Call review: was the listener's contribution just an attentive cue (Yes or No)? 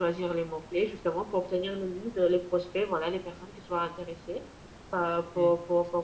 Yes